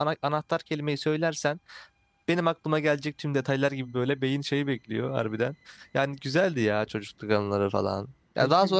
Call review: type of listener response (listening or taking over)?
listening